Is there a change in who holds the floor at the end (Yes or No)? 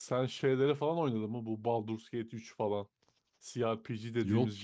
No